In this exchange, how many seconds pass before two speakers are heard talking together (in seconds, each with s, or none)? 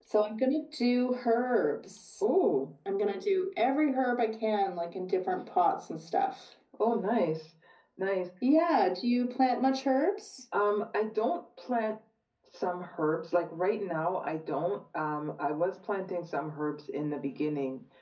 none